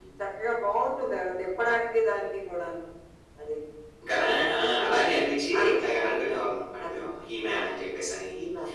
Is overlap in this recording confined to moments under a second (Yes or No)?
Yes